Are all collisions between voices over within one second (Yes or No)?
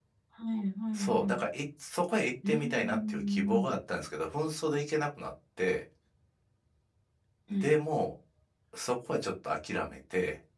No